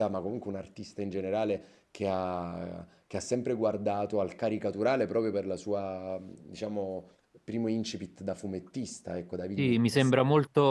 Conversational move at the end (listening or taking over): taking over